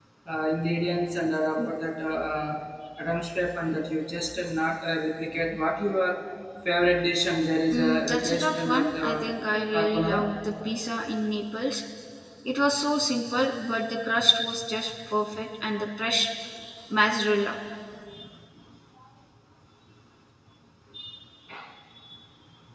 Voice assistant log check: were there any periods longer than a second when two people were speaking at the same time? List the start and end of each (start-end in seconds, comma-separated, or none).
7.7-9.2